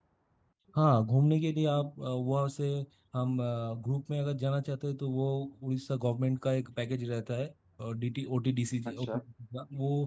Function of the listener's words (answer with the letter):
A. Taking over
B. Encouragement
B